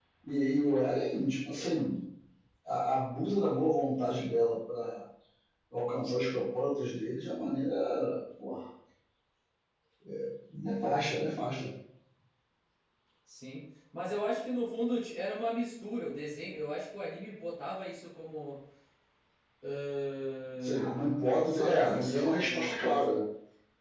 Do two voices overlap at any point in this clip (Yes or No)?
Yes